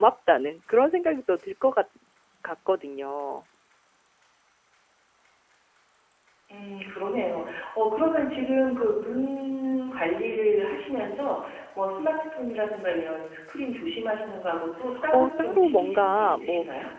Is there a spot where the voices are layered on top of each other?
Yes, from 14.9 s

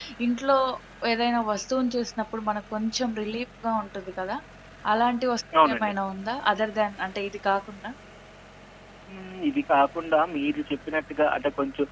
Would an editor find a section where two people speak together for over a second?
No

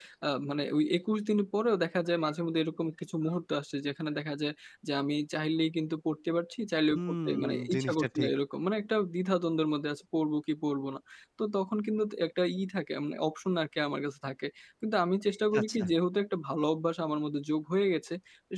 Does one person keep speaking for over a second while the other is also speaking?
Yes, from 6.9 s

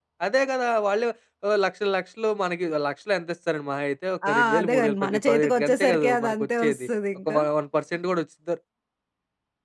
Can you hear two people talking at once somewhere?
Yes, from 4.2 s

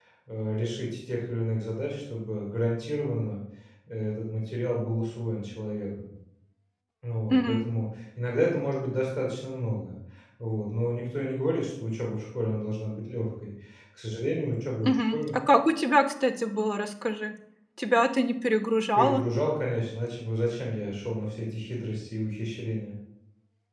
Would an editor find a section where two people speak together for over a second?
No

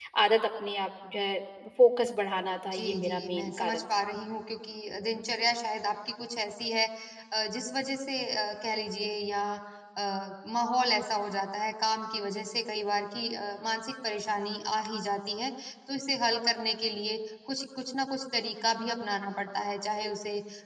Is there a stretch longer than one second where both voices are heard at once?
Yes, from 2.7 s

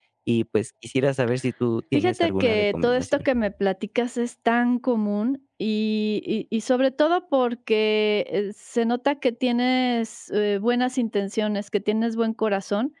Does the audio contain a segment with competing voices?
Yes, from 1.9 s

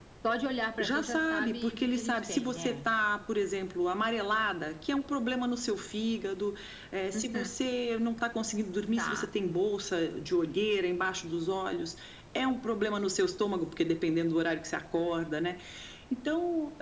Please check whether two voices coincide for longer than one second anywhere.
Yes, from 0.8 s

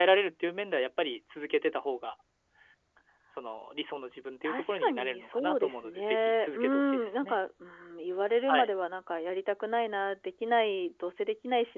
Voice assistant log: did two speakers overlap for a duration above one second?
Yes, from 4.4 s

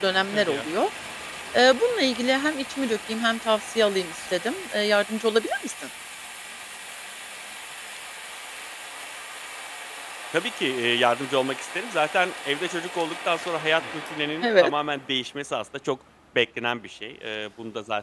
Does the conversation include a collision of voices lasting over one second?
No

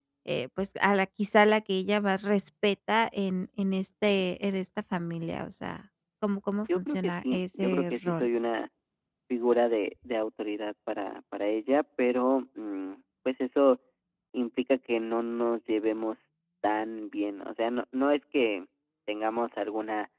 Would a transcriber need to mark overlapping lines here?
Yes, from 6.8 s

